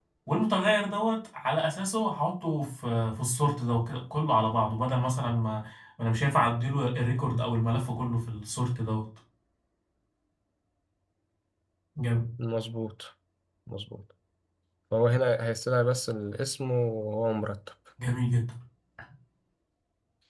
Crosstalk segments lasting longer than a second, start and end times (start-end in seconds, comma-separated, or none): none